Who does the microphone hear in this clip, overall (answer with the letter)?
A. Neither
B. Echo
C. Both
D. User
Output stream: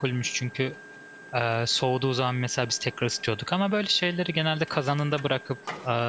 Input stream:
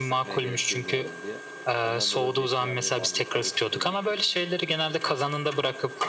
C